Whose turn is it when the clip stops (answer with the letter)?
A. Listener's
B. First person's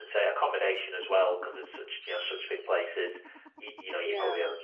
B